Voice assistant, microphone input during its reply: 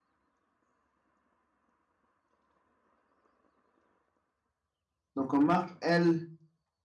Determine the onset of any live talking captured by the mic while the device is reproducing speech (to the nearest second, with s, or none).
5 s